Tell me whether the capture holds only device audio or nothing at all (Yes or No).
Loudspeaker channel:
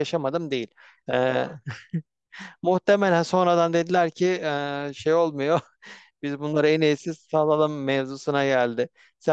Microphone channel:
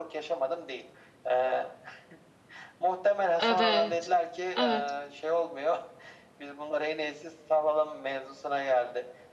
No